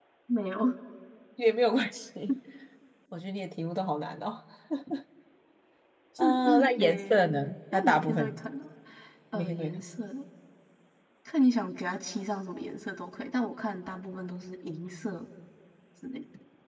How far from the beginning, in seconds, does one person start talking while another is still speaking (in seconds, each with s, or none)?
6.2 s